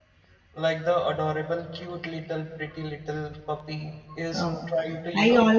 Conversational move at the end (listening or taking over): taking over